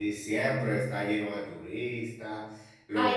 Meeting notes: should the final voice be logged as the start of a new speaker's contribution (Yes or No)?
No